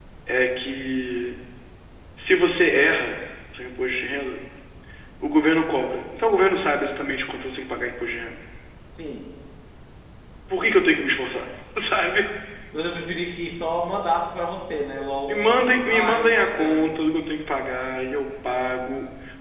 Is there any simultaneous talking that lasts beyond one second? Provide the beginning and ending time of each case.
15.3-16.8

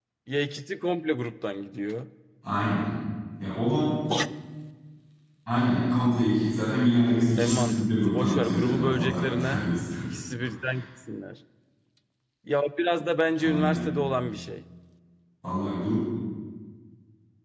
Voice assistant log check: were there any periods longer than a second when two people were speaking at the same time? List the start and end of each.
7.4-9.6

